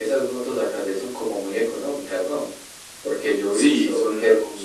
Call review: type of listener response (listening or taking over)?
taking over